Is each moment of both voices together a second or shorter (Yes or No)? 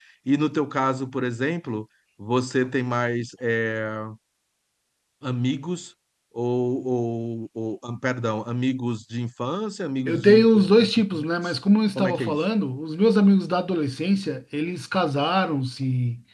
No